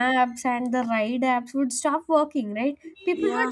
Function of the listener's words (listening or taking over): listening